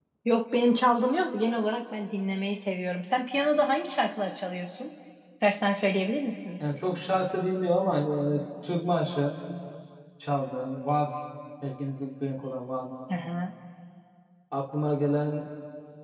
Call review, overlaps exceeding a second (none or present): none